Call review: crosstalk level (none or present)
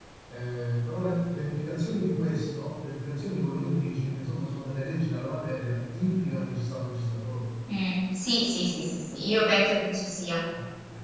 none